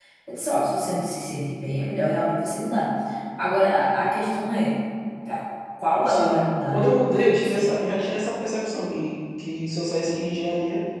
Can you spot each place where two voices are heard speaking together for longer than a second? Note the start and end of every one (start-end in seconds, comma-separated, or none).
6.1-7.8